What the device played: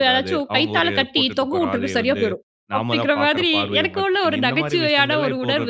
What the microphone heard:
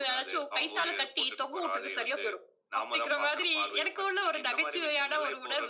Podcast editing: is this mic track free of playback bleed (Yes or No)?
No